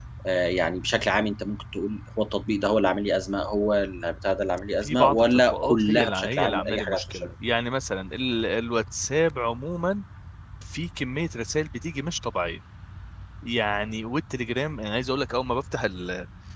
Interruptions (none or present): present